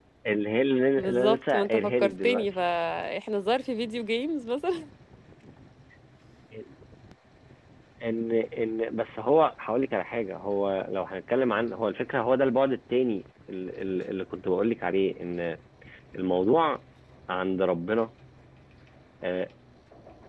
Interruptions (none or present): present